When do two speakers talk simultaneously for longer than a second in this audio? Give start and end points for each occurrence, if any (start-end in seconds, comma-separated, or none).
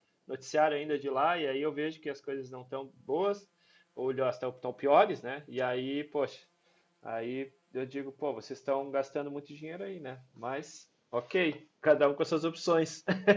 none